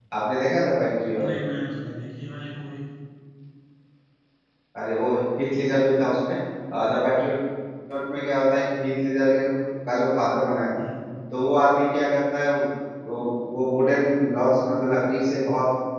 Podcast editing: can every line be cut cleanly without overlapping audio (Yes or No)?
Yes